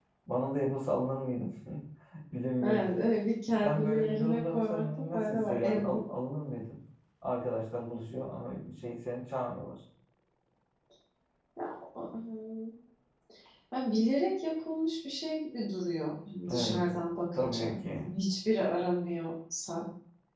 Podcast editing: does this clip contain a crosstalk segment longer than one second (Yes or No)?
Yes